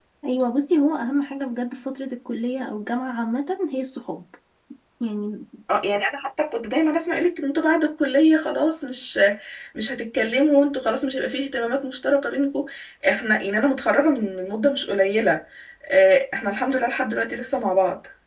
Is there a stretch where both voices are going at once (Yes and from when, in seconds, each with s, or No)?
No